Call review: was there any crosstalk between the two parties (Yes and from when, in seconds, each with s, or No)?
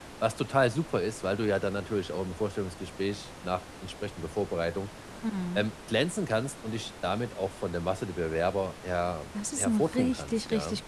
Yes, from 9.3 s